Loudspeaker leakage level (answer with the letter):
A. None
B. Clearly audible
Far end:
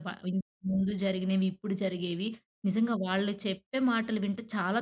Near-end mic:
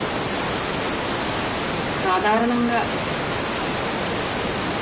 A